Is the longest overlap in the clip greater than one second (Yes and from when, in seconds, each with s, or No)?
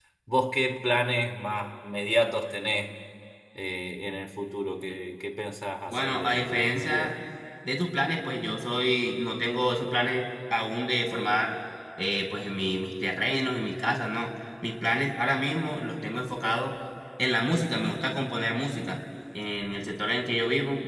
Yes, from 5.9 s